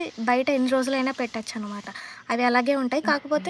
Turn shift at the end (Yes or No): No